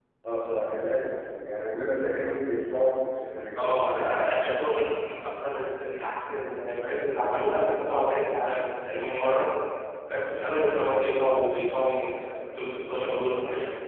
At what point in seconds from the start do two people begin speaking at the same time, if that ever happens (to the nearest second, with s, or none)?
4 s